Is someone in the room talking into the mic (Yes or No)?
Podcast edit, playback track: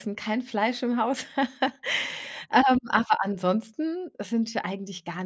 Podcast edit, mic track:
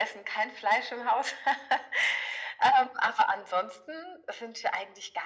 No